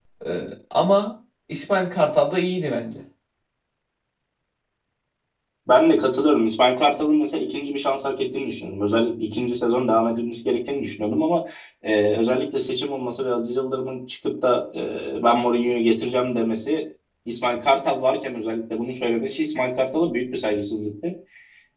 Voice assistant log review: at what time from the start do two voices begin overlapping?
none

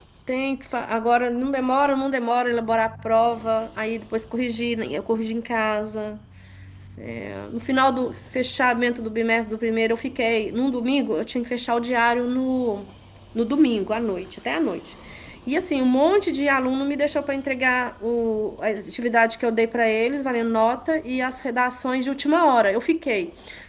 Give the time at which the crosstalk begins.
none

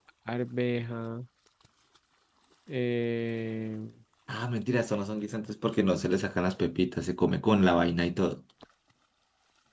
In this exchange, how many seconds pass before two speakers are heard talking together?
none

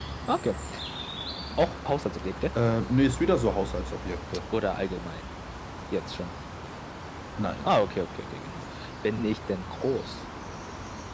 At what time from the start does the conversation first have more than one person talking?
none

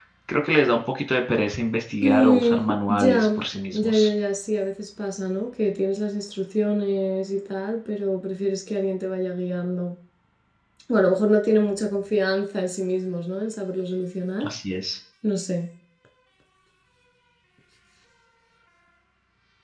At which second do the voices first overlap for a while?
2 s

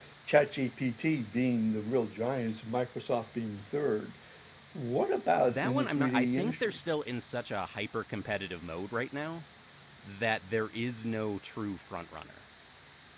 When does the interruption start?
5 s

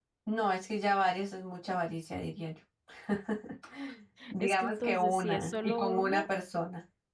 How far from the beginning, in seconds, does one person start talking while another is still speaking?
4 s

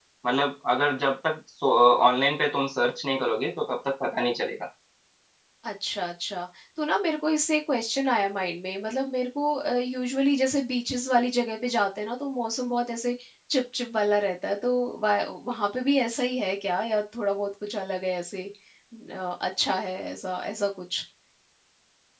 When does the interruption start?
none

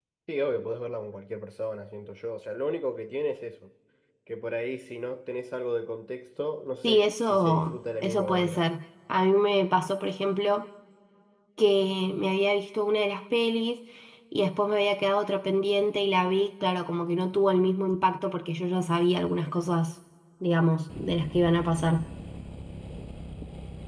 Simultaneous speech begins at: 7 s

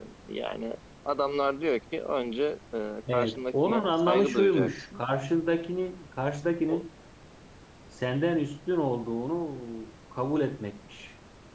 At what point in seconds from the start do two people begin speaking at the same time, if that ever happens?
3 s

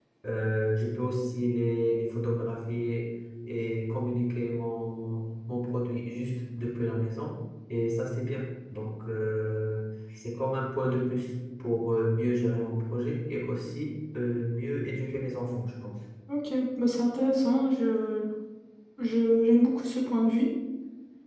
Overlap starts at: none

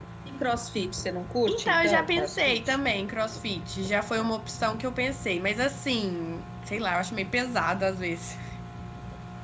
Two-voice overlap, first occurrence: 1 s

